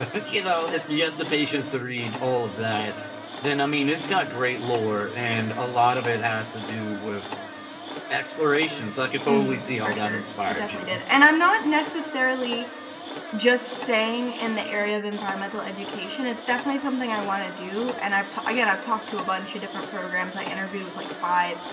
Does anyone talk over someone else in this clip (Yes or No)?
Yes